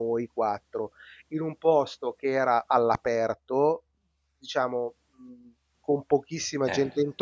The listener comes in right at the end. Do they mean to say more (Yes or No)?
No